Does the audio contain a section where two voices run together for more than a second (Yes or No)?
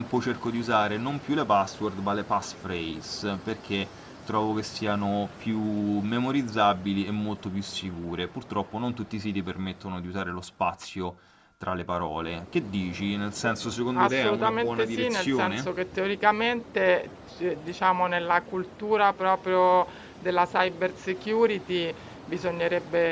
Yes